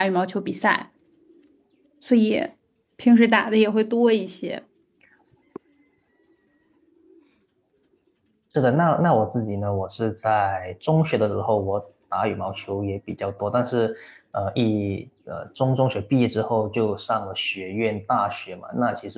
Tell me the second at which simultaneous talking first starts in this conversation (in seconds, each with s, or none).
none